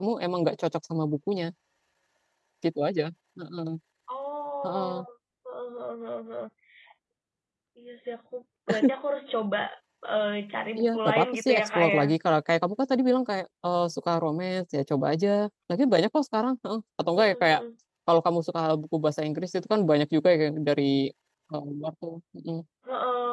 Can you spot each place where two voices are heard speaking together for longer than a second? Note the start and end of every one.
10.8-12.0

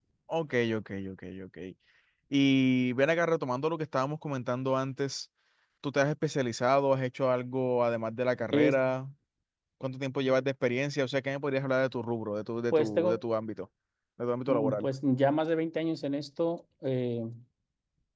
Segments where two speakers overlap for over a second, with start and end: none

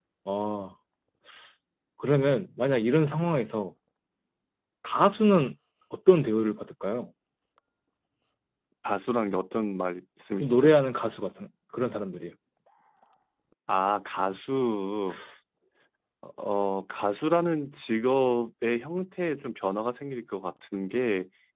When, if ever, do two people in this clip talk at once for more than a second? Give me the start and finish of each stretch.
none

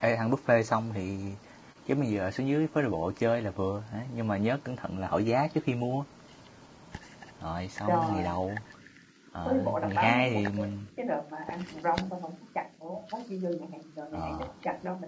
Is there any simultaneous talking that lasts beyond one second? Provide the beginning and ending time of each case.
9.4-10.7

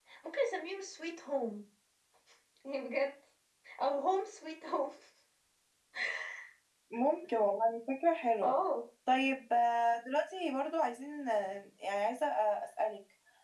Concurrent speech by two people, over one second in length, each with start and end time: none

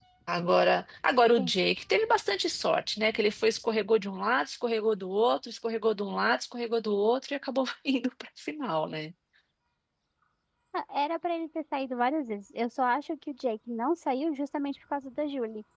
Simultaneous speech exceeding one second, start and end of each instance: none

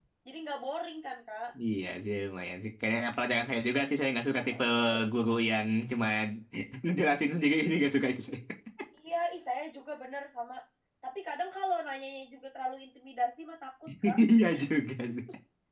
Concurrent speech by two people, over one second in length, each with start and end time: none

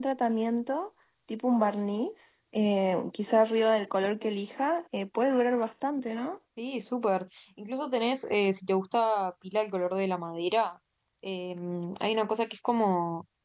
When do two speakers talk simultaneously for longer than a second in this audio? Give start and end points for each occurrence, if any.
none

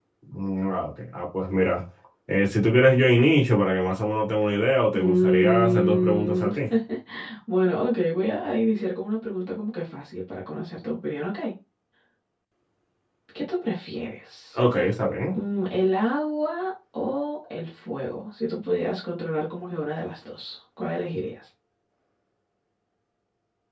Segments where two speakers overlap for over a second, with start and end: 4.9-6.5

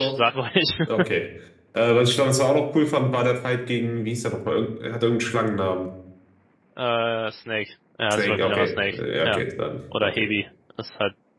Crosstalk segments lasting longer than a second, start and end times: 8.1-9.4

